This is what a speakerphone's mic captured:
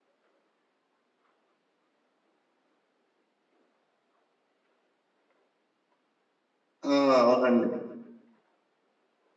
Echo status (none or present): none